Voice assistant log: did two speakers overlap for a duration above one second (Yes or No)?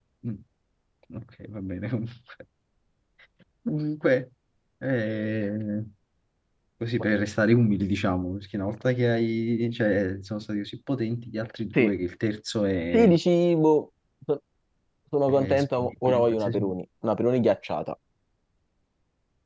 Yes